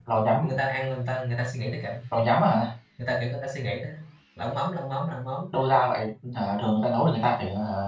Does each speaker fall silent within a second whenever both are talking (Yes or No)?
Yes